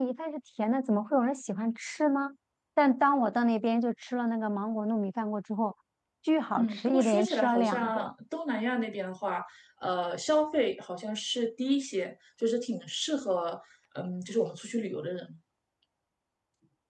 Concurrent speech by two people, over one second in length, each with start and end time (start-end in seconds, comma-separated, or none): 6.6-8.1